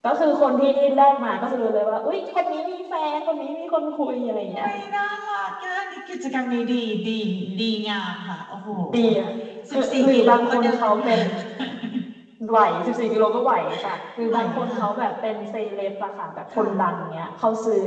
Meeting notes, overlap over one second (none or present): present